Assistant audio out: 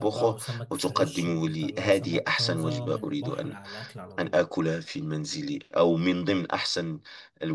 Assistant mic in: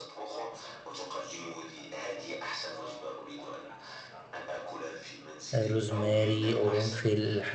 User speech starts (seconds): 5.5 s

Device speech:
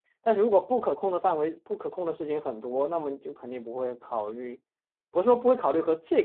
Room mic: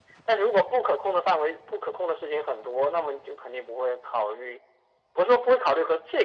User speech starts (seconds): none

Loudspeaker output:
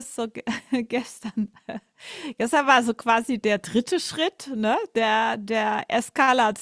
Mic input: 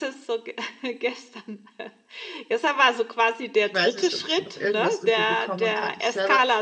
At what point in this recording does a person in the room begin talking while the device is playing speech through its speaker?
3.6 s

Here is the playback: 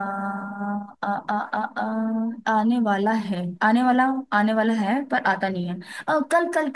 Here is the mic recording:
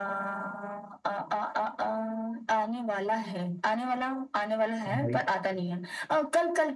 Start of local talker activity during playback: 4.9 s

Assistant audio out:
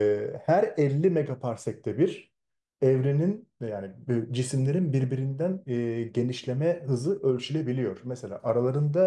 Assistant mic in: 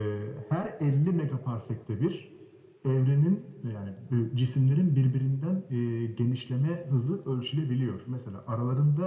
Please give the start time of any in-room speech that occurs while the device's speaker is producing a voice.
none

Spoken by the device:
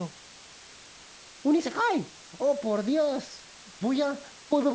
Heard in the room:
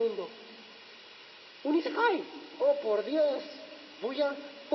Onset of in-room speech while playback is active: none

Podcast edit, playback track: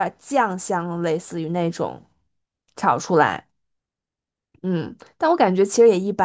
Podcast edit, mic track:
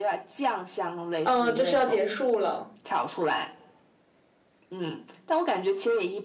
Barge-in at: 1.2 s

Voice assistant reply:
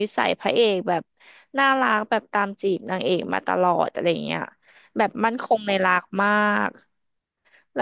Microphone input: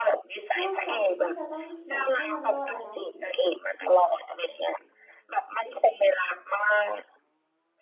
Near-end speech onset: 0.6 s

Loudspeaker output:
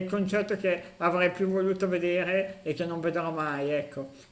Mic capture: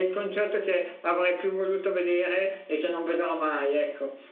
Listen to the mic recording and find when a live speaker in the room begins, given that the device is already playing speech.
none

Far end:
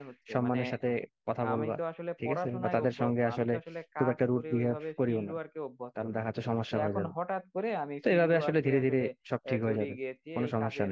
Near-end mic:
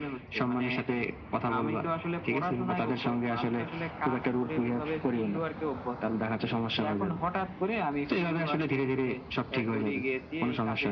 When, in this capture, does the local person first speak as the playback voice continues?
none

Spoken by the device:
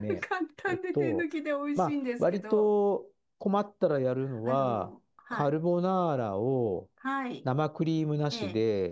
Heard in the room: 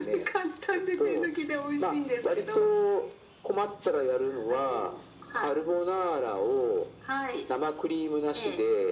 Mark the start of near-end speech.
none

